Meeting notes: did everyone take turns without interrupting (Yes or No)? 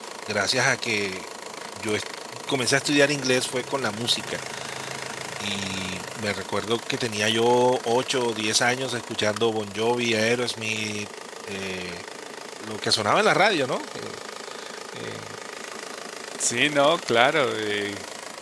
Yes